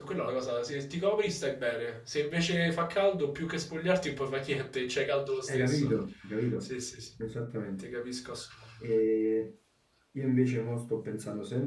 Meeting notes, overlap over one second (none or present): none